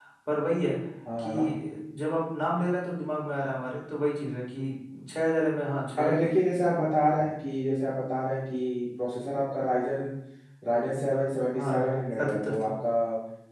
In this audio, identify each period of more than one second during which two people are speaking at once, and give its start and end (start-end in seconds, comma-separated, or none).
none